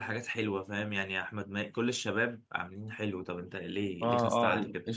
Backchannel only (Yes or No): No